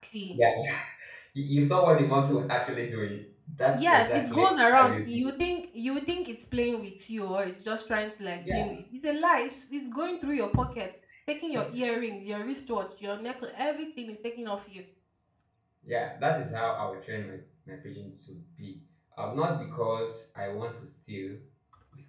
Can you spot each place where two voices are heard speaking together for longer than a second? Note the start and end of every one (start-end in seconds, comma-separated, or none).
3.7-5.3